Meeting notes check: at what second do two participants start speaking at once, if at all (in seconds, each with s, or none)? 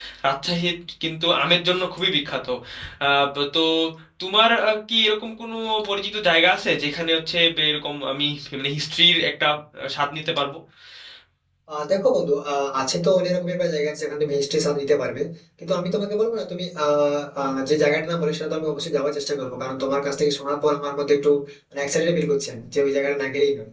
none